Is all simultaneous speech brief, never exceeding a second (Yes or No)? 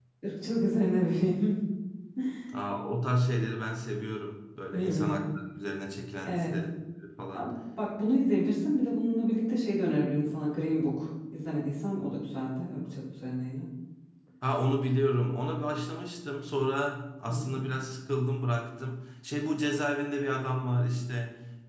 Yes